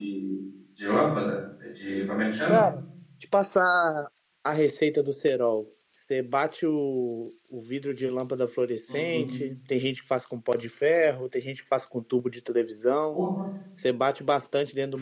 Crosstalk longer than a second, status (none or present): none